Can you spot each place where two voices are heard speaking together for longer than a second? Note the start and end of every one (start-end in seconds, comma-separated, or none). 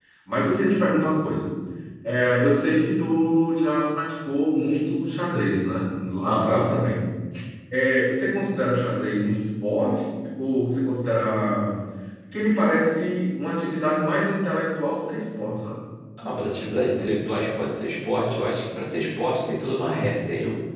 none